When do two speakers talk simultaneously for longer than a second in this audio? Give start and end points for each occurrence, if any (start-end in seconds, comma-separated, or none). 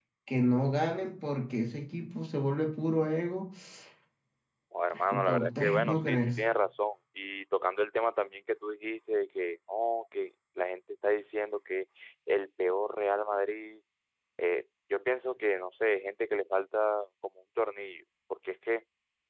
4.9-6.3